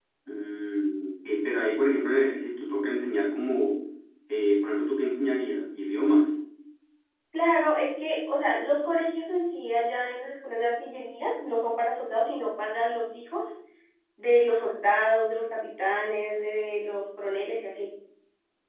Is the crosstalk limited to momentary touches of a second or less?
Yes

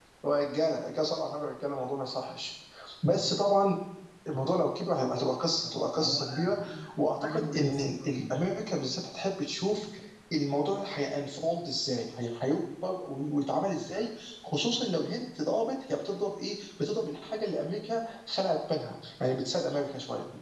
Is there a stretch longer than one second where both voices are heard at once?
Yes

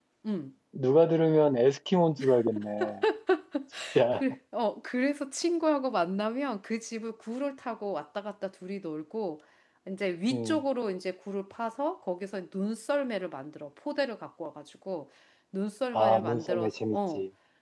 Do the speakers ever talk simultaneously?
Yes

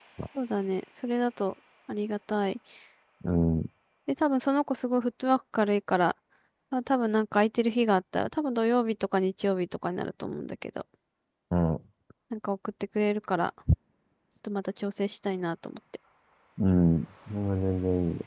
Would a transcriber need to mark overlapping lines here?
No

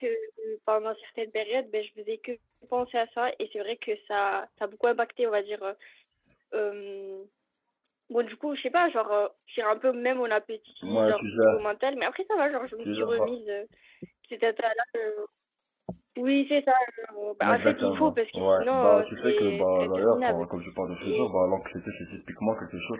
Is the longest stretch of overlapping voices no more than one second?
No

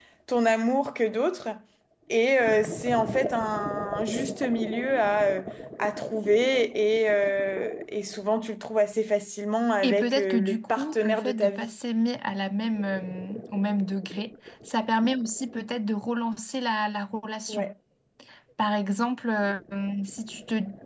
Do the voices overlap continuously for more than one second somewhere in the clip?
Yes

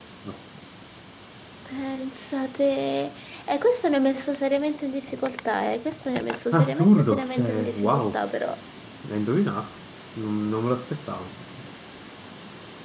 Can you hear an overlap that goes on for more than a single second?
Yes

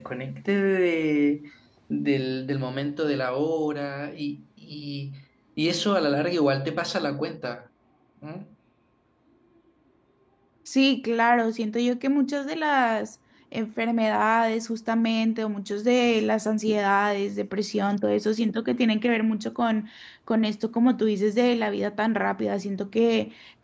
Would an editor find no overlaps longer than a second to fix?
Yes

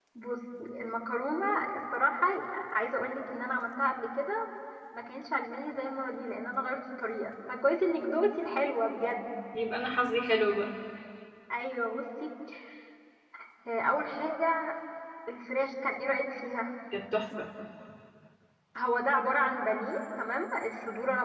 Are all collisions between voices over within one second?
Yes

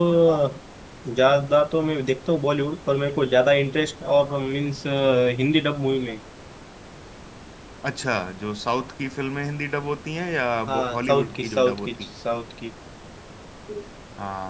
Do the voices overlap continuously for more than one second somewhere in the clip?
Yes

